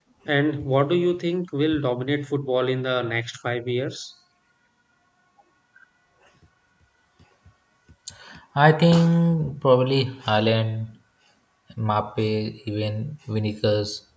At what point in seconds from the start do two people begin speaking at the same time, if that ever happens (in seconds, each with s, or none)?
none